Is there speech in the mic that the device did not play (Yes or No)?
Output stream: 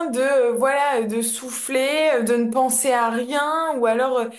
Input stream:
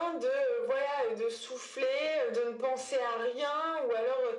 No